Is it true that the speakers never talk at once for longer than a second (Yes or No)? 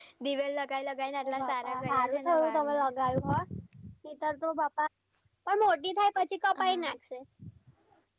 No